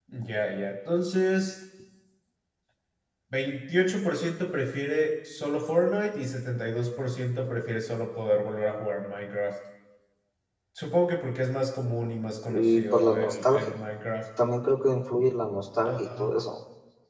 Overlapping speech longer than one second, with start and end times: 12.5-13.7

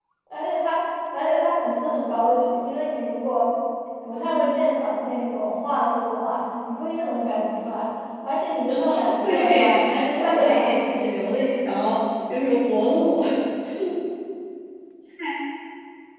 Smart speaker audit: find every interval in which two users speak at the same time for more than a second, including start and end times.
9.2-10.7

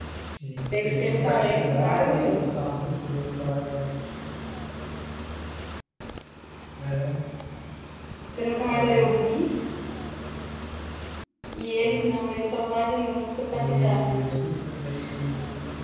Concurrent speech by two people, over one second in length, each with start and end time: 0.7-2.4

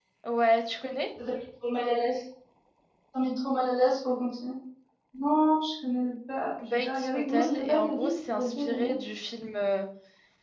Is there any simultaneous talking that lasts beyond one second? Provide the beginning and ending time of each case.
6.7-8.9

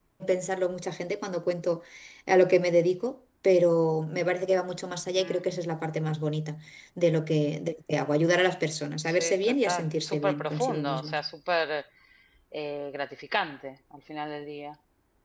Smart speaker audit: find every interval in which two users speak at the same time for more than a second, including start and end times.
9.1-11.2

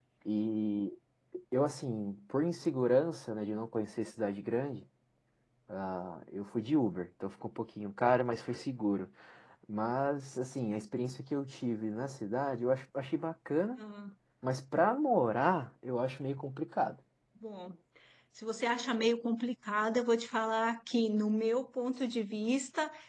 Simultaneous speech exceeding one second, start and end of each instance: none

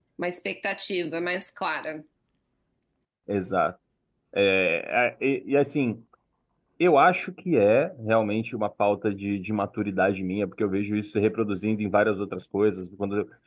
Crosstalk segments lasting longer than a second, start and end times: none

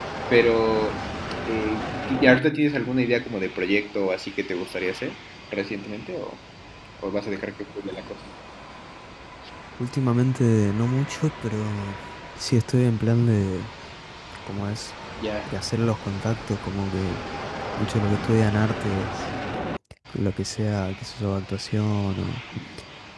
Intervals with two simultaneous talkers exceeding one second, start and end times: none

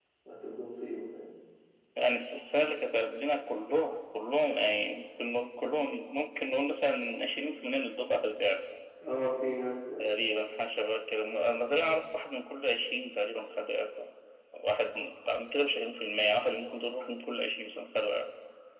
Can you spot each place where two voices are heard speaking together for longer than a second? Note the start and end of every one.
none

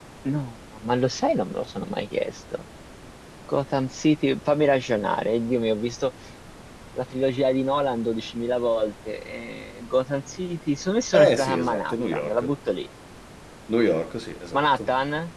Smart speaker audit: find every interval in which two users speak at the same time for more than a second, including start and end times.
11.1-12.5

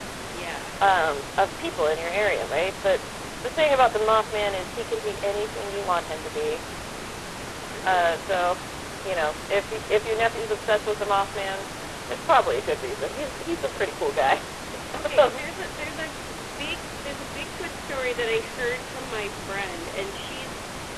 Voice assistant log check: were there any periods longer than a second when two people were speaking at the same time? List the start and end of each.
none

